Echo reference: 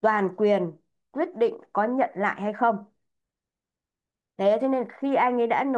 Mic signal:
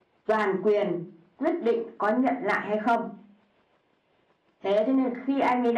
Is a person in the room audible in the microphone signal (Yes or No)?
No